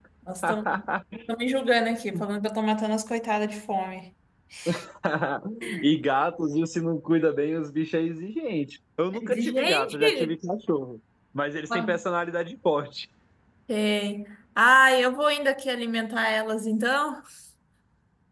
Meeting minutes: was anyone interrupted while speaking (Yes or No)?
Yes